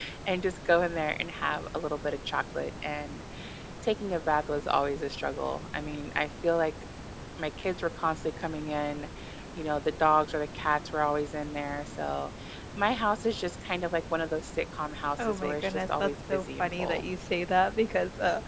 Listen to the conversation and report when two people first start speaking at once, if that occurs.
15 s

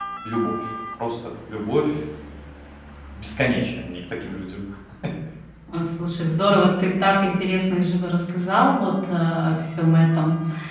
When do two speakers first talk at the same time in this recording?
none

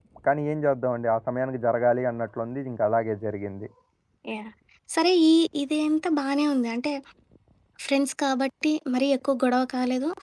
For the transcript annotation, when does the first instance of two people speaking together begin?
none

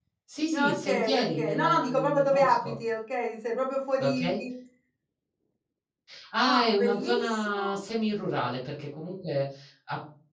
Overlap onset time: 1 s

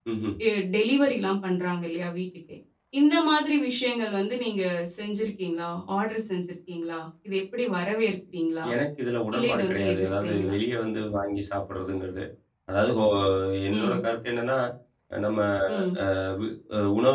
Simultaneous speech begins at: 9 s

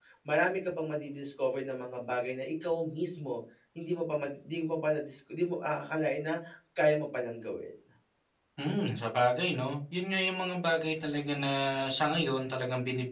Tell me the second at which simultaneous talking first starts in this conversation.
none

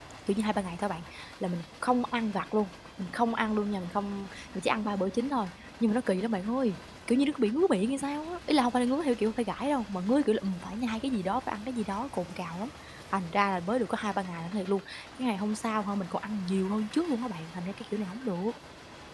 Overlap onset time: none

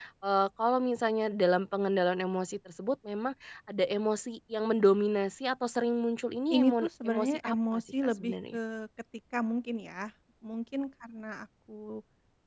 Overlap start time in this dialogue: 7 s

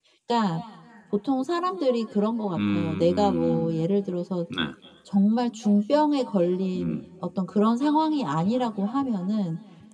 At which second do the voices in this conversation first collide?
3 s

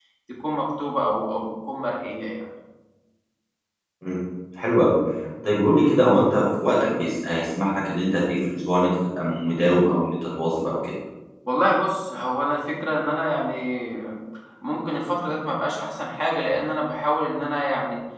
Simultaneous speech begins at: none

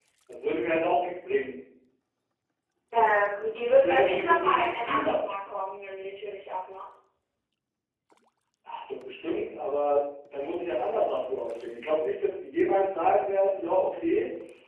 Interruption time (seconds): 4 s

